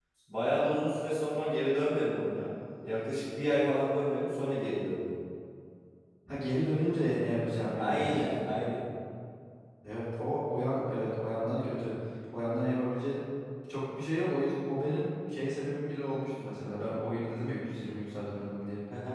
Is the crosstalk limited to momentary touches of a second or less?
Yes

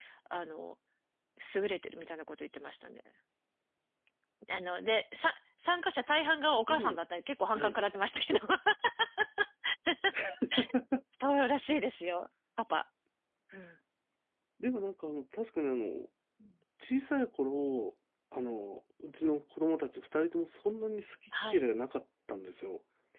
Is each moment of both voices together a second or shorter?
Yes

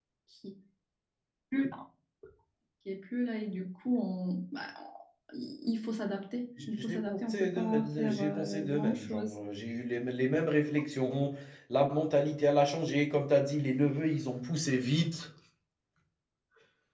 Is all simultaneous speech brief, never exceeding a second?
No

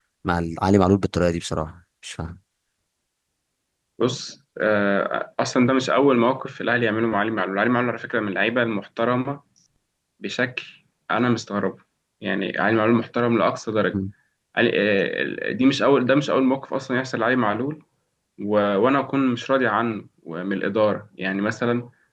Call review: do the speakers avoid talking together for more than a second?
Yes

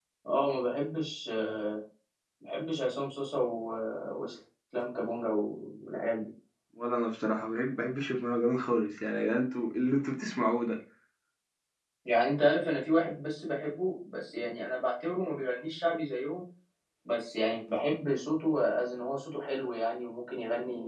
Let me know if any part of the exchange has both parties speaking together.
No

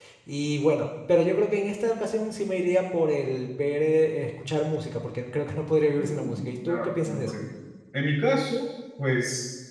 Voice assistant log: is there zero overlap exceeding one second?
No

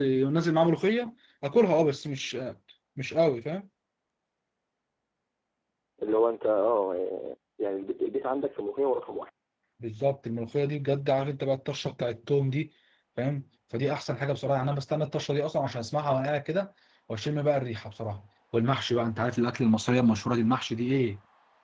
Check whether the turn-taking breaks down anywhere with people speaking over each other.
No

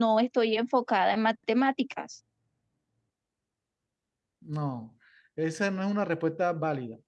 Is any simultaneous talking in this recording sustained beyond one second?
No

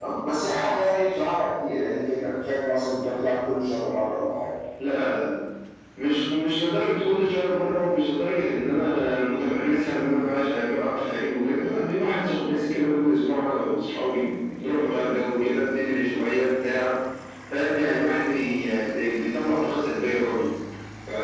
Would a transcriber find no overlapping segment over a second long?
Yes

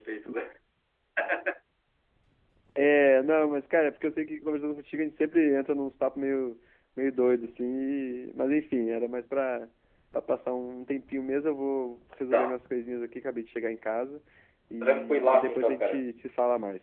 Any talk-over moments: Yes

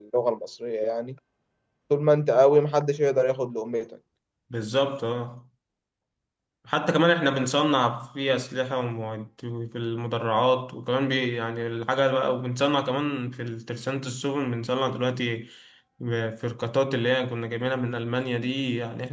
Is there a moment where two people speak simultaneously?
No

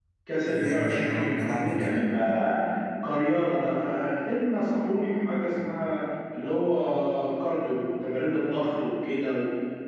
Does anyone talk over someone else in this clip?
Yes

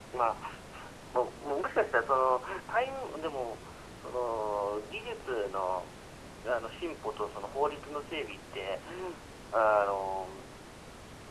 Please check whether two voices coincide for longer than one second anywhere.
No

